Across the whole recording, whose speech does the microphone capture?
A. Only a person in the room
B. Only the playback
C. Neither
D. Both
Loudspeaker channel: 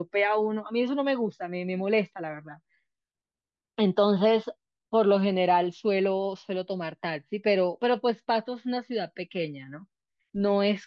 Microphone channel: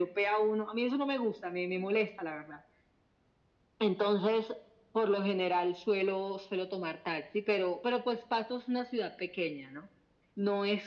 B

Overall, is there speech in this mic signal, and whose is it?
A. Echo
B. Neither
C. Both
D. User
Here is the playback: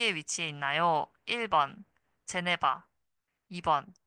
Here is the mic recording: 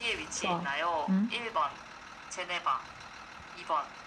C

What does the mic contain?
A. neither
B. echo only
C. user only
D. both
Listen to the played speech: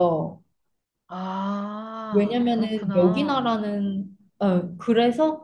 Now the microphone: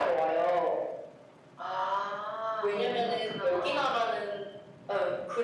D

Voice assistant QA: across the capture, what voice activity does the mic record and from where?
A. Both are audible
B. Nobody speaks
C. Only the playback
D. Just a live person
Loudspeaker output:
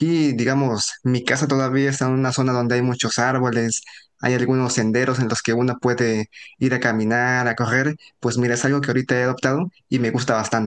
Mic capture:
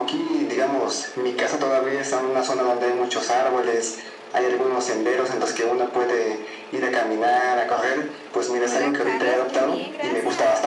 A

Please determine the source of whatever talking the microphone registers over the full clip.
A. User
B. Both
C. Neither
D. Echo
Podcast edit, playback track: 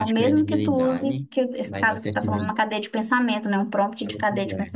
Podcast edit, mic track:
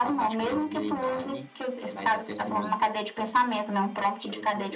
D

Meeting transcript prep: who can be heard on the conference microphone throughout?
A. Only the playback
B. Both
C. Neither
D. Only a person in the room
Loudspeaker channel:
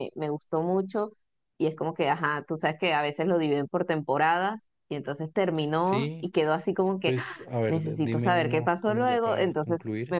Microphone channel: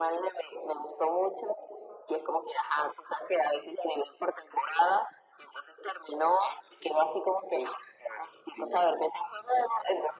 A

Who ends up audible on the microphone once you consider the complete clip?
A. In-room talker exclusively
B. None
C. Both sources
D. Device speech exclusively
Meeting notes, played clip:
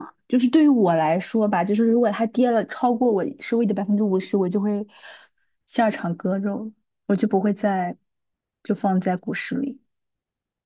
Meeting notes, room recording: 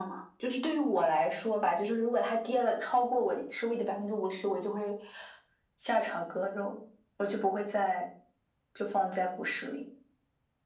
D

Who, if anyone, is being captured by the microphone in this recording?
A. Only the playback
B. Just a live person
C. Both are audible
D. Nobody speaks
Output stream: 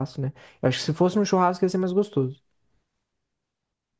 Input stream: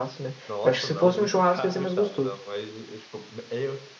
C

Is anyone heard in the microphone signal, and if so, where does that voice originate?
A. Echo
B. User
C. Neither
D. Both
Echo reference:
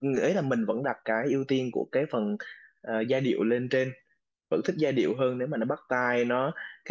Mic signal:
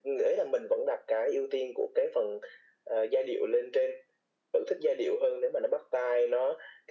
A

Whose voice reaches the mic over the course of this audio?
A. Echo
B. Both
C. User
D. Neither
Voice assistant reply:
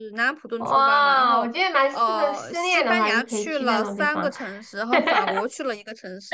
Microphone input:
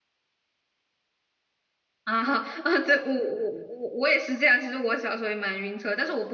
C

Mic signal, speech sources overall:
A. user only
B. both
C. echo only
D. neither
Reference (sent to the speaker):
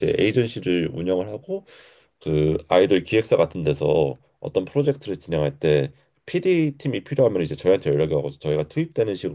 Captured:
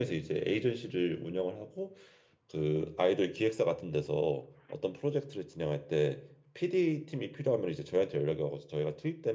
C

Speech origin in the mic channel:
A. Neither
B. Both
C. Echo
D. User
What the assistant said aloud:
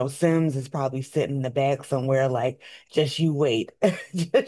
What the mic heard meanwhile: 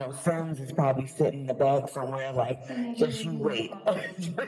B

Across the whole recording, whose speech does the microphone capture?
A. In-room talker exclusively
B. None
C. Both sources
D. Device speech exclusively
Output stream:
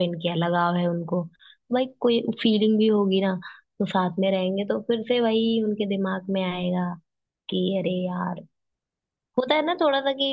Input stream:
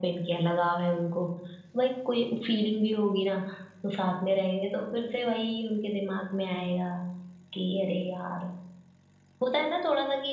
D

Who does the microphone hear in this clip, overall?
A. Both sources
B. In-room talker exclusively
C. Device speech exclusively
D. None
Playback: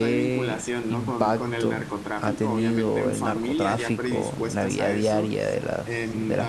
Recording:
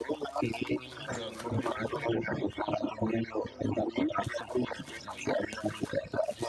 A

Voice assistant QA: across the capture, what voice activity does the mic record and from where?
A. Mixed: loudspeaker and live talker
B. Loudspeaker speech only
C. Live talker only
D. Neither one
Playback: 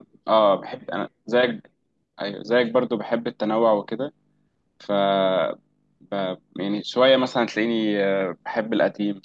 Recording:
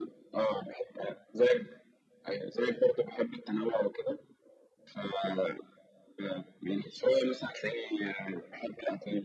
B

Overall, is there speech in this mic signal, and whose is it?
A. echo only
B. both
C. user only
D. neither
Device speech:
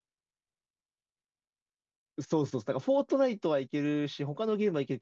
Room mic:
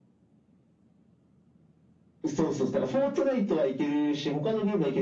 A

